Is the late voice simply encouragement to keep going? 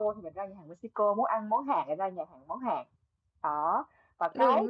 Yes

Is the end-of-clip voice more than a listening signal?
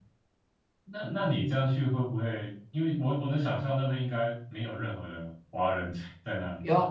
Yes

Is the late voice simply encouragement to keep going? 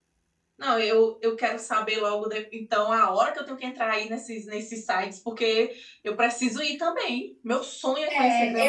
No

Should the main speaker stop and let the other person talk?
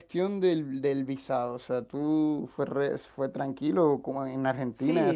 Yes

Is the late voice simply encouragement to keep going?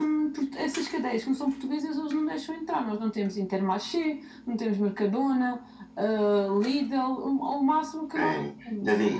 No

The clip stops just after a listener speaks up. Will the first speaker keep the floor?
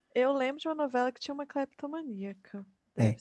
No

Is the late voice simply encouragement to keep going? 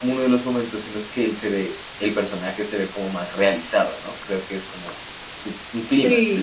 No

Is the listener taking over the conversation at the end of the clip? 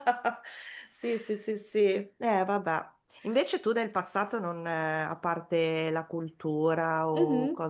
No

